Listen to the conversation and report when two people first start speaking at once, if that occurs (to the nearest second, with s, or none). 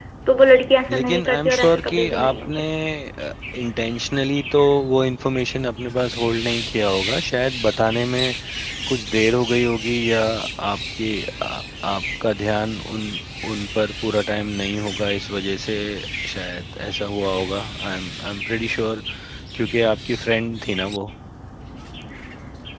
1 s